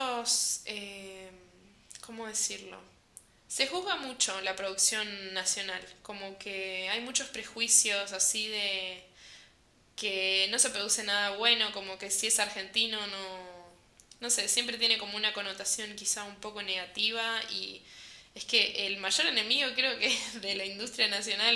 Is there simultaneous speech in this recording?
No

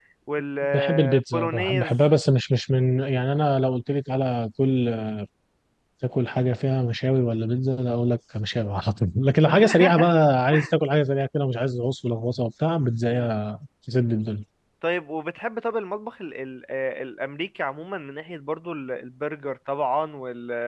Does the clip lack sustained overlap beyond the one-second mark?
No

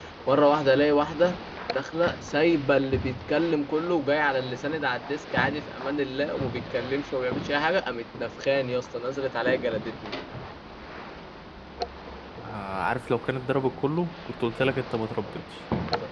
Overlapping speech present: No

